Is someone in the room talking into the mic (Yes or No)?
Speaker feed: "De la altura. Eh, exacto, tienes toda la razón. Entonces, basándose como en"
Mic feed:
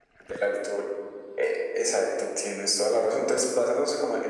No